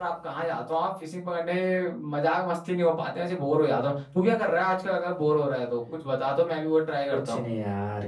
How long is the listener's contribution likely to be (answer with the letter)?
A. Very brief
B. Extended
B